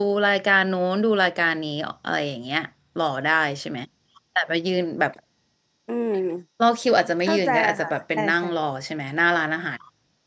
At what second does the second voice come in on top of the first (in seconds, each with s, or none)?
7.2 s